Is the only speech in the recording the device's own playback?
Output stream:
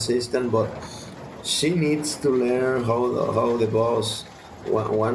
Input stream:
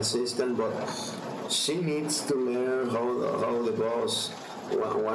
Yes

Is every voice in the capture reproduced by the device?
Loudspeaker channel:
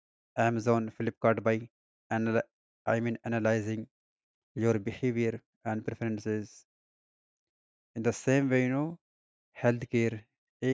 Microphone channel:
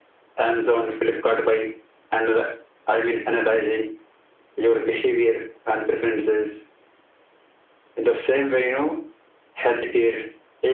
Yes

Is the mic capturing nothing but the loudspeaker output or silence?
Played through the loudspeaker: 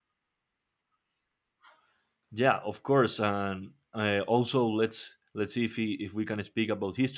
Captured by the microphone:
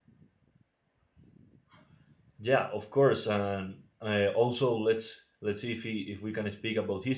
Yes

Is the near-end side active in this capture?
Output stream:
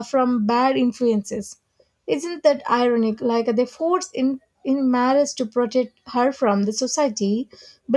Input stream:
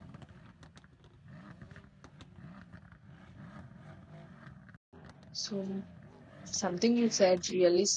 Yes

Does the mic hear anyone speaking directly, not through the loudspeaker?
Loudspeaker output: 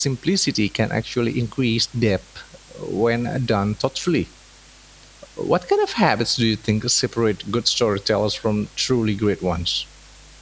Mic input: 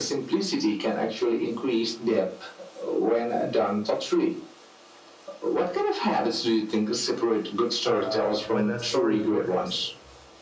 Yes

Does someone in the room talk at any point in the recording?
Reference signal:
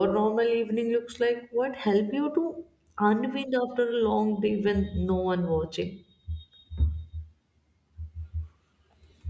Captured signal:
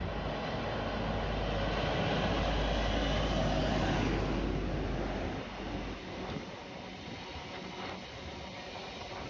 No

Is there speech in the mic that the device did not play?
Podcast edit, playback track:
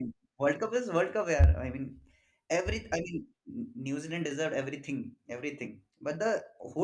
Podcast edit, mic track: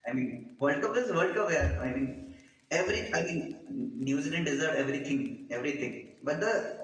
No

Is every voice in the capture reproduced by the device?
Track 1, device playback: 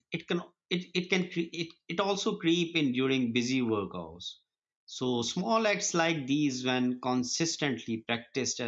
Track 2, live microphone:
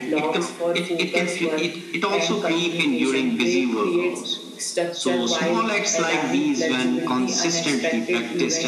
No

